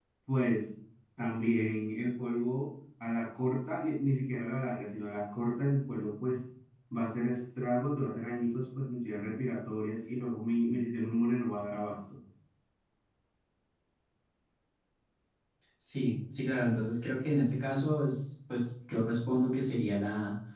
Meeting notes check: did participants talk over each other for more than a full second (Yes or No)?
No